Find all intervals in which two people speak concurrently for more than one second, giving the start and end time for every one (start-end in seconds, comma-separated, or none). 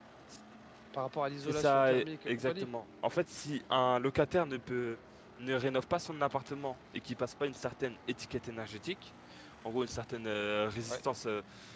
1.4-2.7